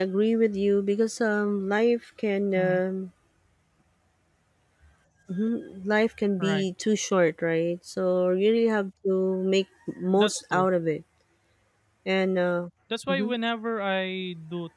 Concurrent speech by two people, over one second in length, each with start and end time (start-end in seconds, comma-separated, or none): none